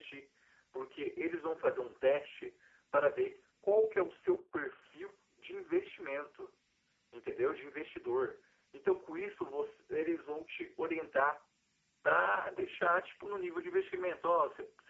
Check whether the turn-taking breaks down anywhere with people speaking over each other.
No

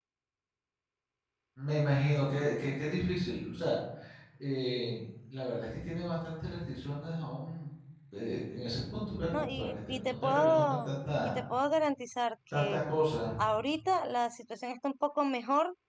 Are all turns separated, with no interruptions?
No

